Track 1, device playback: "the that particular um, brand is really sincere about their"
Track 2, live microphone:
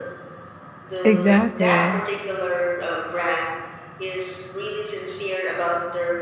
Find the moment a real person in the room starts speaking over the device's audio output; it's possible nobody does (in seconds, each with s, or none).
1.1 s